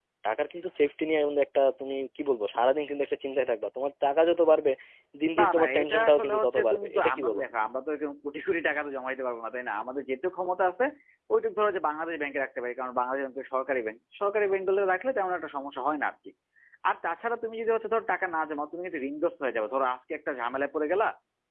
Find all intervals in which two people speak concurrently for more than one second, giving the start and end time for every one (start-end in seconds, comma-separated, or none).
5.4-7.4